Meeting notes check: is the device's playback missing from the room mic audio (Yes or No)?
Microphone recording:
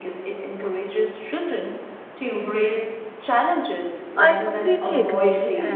No